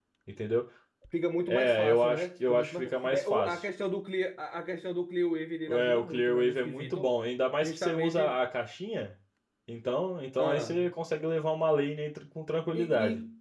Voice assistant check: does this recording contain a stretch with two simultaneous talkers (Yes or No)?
Yes